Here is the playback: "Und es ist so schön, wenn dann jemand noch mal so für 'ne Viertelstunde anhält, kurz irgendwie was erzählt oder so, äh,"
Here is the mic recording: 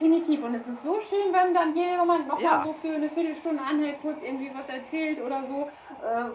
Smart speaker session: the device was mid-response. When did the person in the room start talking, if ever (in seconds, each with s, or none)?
2.3 s